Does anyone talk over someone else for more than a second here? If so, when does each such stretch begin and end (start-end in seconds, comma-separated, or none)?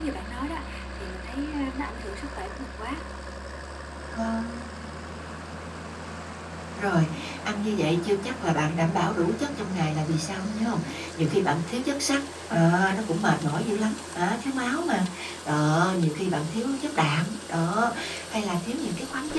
none